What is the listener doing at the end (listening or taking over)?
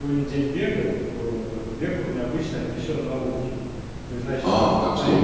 taking over